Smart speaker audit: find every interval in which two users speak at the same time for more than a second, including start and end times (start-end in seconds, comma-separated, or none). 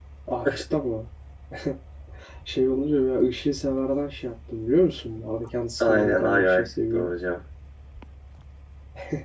5.8-7.1